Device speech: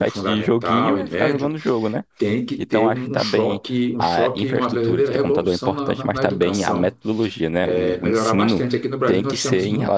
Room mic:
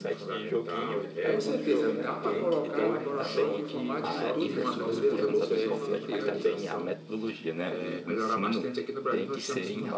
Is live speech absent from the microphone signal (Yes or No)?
No